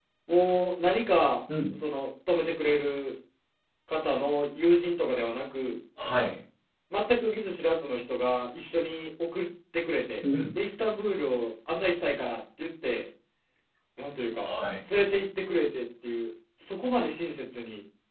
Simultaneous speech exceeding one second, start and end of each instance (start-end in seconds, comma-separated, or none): none